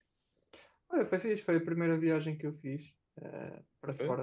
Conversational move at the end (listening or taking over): listening